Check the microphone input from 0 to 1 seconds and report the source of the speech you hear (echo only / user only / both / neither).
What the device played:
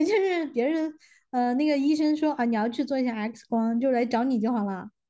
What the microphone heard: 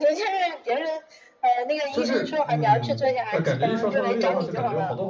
echo only